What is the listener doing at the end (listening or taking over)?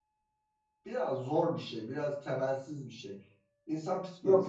taking over